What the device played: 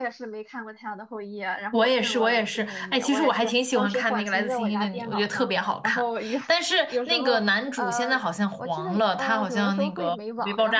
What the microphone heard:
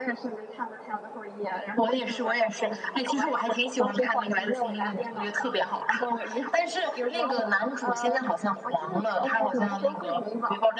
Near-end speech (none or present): none